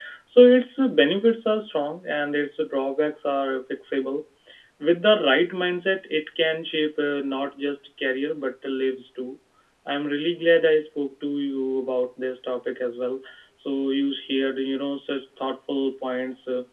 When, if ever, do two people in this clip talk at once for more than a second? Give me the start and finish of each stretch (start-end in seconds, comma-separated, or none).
none